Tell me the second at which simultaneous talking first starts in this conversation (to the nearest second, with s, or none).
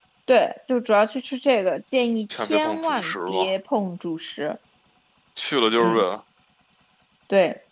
2 s